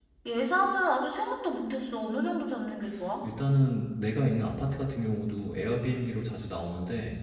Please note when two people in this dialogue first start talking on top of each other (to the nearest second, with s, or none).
none